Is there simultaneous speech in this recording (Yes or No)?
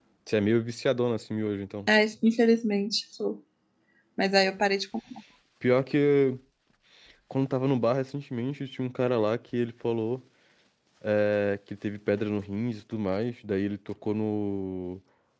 No